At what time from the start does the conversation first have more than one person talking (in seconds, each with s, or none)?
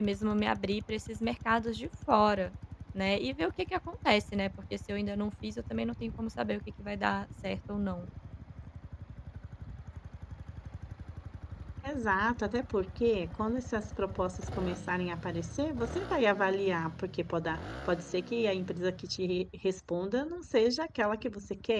none